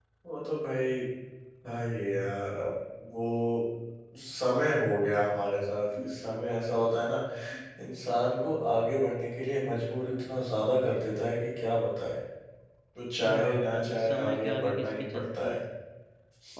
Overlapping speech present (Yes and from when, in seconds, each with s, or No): Yes, from 13.3 s